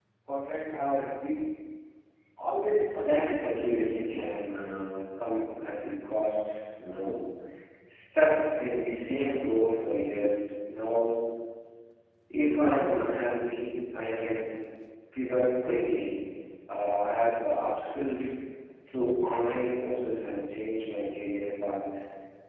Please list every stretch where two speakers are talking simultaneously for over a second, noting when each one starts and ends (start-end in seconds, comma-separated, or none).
3.0-4.4